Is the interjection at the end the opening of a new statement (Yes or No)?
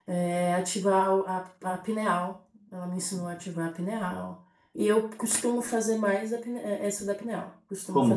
Yes